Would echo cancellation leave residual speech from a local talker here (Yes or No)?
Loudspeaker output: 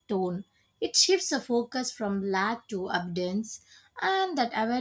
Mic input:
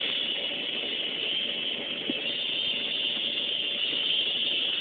No